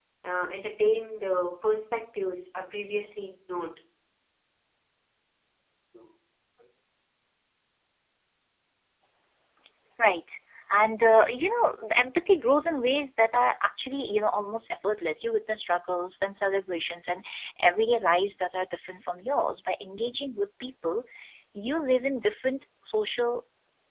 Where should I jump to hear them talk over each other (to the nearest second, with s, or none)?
none